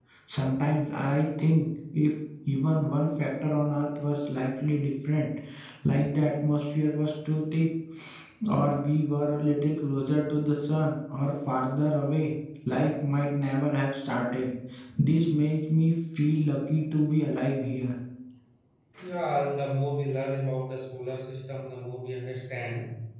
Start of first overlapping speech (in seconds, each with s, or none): none